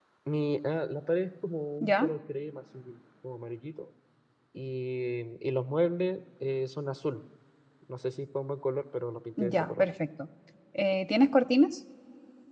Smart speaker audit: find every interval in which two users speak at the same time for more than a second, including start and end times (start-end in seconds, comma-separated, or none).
none